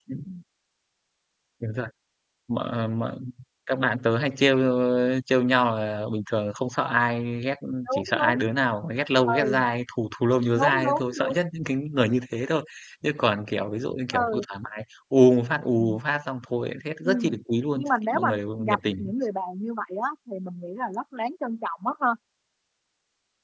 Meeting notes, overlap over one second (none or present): present